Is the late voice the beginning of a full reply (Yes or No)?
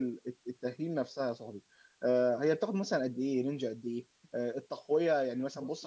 No